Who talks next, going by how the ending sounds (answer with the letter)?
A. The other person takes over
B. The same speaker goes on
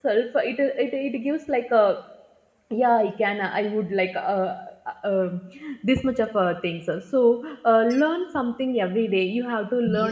B